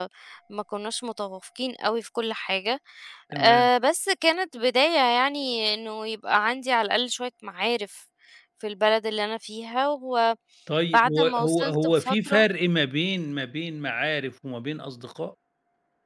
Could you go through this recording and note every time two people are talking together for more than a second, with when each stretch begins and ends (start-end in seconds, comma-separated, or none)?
11.2-12.4